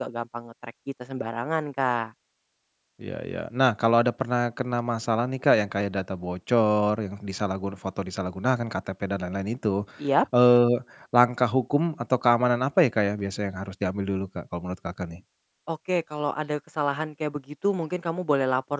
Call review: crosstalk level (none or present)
none